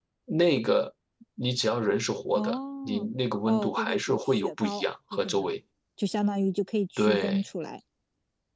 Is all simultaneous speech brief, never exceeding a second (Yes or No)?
No